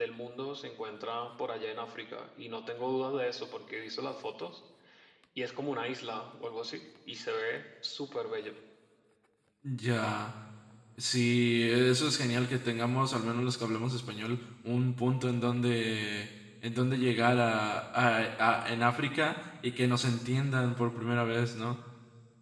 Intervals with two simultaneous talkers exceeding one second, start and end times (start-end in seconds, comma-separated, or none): none